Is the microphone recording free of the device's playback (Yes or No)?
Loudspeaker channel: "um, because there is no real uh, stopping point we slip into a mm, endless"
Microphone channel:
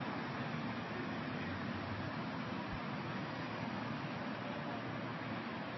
Yes